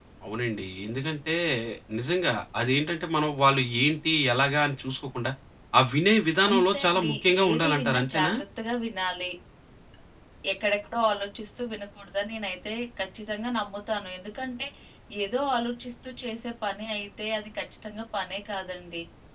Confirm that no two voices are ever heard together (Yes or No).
No